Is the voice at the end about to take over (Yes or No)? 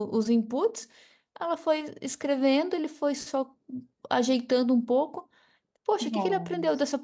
No